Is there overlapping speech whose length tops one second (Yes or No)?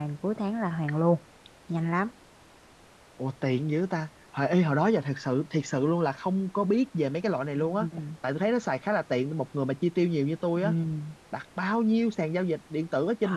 No